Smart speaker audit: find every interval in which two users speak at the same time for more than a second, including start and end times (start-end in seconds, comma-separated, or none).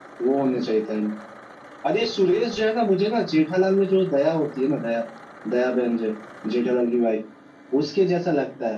none